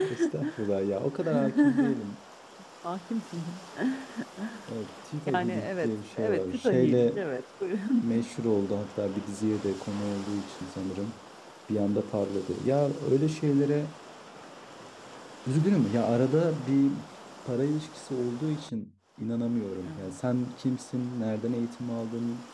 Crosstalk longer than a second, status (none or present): present